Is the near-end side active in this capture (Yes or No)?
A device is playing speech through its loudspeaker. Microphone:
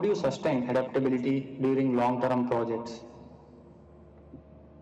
No